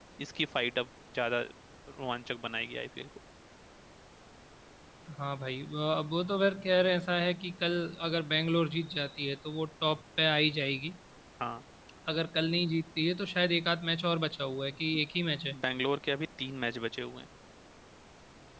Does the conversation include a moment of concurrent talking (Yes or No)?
No